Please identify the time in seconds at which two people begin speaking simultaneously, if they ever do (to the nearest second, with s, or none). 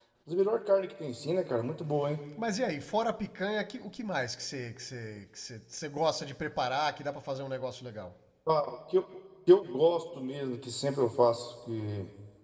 none